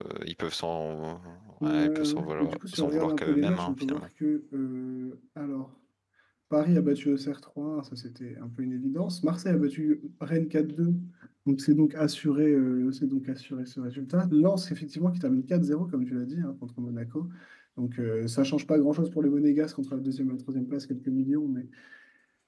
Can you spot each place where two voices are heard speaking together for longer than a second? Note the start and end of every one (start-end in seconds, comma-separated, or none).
1.6-4.0